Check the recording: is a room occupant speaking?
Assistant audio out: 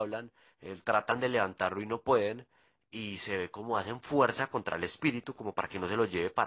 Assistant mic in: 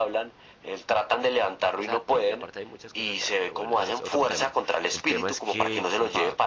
Yes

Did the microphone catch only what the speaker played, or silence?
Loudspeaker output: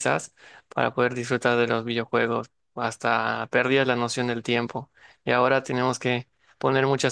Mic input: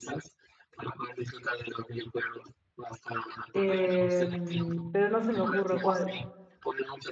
No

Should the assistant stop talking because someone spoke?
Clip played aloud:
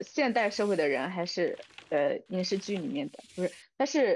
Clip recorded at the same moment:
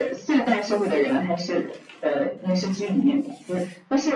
No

